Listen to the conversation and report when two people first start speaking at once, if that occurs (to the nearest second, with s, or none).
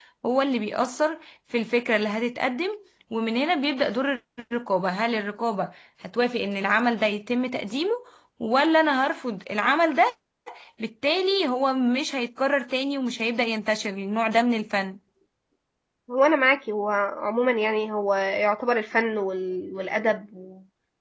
none